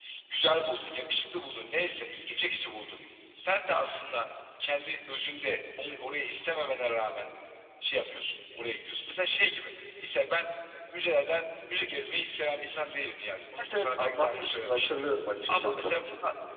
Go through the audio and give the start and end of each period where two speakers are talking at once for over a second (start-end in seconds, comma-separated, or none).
13.7-15.0